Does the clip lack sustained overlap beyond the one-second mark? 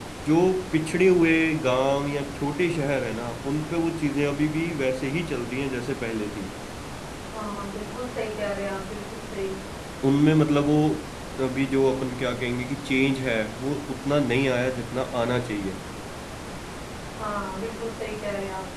Yes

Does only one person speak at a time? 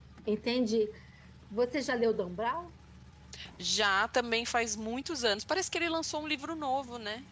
Yes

